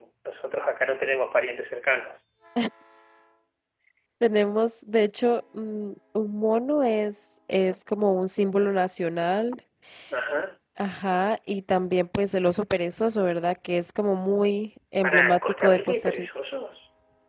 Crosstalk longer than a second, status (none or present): present